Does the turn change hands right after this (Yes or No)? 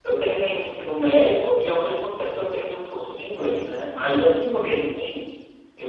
No